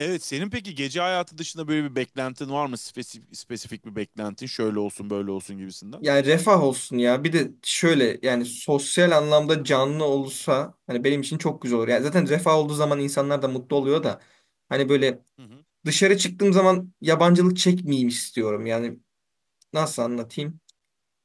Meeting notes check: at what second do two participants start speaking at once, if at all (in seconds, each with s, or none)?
none